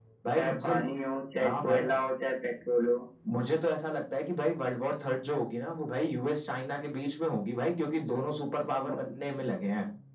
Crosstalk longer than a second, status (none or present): none